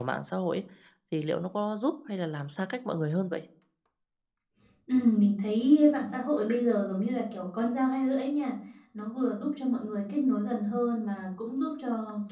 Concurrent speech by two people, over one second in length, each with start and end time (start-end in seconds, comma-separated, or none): none